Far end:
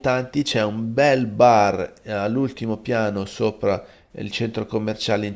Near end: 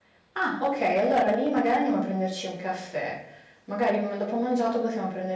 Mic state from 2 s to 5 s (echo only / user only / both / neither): user only